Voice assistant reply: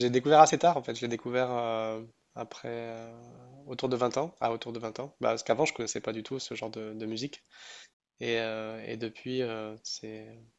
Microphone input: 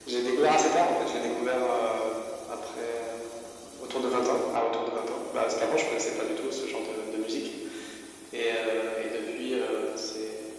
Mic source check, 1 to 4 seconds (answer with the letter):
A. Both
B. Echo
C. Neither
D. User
B